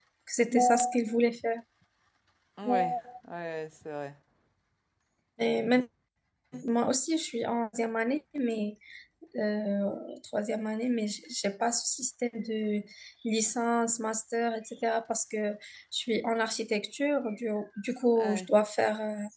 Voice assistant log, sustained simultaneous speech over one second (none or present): none